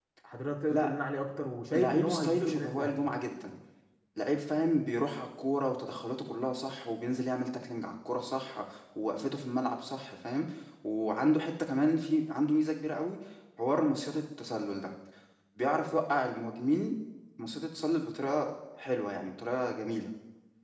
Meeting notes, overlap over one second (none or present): present